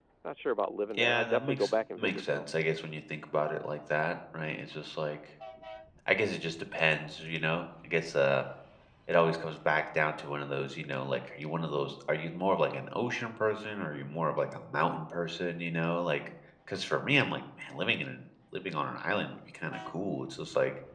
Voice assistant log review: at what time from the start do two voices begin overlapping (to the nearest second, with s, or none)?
1 s